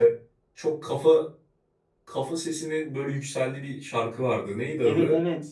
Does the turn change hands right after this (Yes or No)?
Yes